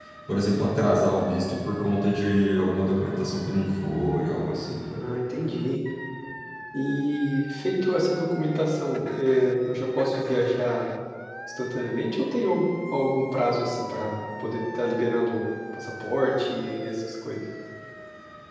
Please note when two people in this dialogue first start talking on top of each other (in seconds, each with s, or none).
none